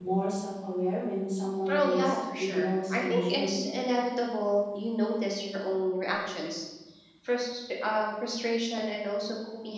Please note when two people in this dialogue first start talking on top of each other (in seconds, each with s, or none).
1.7 s